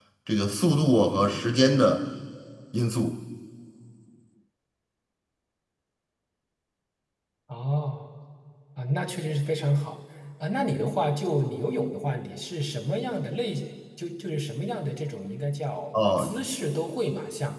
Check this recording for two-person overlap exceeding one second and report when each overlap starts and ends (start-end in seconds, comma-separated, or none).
none